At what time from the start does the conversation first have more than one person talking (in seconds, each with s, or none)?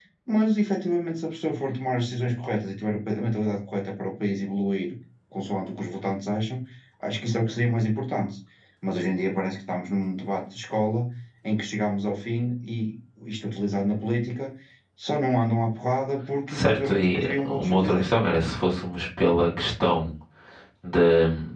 16.5 s